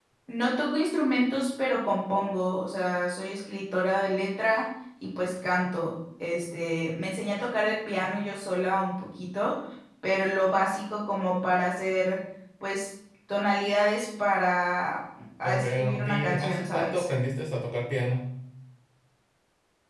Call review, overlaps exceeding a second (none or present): present